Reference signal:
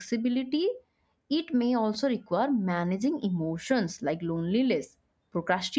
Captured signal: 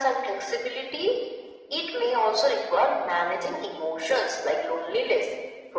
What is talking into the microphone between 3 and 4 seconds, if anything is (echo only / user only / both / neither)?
echo only